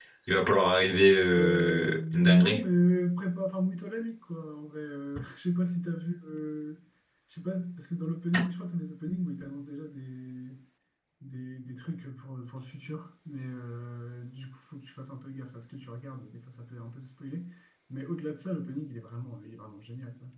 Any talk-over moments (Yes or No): Yes